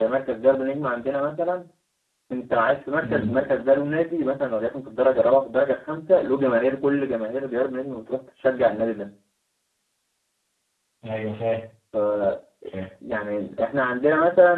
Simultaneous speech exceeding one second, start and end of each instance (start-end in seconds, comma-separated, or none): none